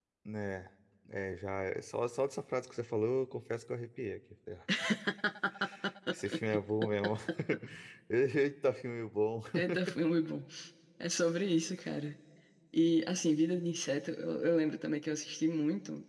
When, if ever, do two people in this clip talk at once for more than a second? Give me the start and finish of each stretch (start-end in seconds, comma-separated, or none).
none